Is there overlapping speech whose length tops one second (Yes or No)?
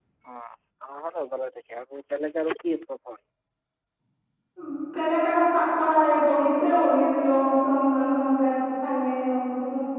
No